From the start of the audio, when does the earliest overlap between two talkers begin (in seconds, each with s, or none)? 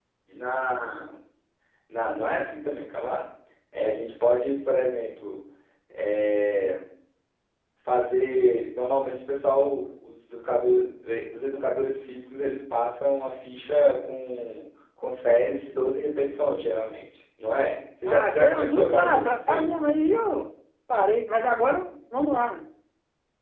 18.1 s